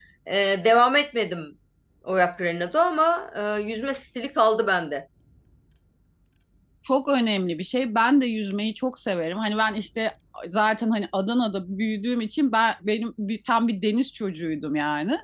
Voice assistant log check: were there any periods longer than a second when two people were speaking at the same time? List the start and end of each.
none

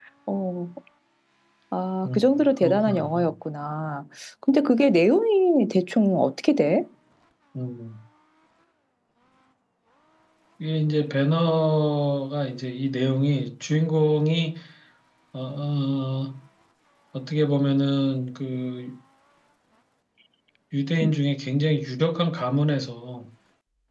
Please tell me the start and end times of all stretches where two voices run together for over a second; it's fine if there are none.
2.0-3.3

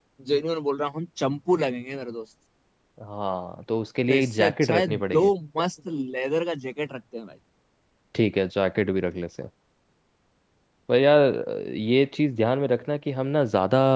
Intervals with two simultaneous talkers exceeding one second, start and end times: 4.1-5.3

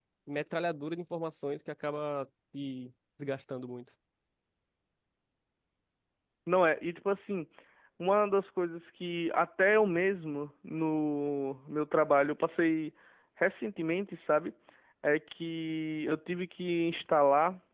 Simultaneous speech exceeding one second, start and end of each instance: none

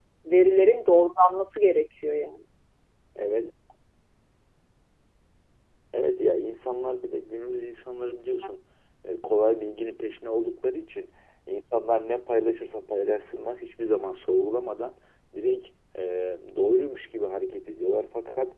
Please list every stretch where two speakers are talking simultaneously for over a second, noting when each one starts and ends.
none

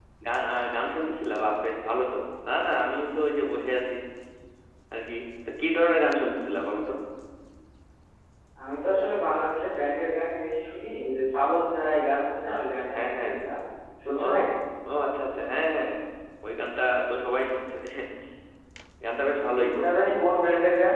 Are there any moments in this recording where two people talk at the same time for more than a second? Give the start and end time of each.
none

